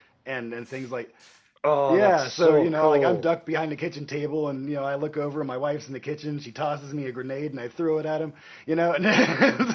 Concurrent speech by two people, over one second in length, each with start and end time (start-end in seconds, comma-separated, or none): 1.9-3.2